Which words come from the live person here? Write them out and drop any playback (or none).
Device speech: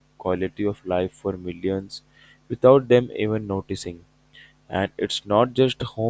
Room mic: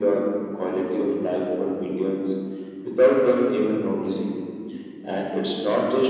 none